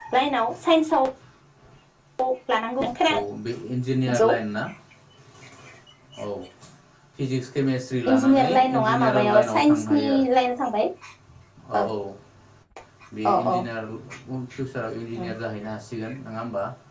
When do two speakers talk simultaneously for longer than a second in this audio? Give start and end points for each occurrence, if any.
8.1-10.2

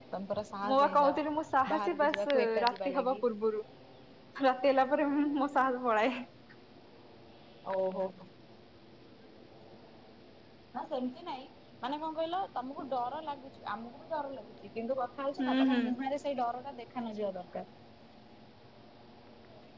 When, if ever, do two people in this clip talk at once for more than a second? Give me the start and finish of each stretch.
0.7-3.2

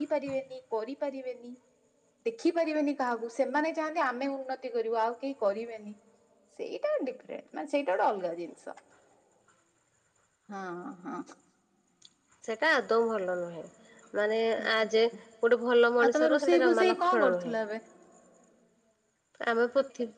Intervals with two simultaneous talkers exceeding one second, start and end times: 16.1-17.6

